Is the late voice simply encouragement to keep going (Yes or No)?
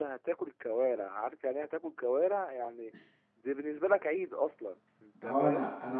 No